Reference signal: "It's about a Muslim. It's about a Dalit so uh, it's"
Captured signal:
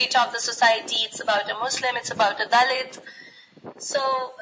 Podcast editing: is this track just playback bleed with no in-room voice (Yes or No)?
Yes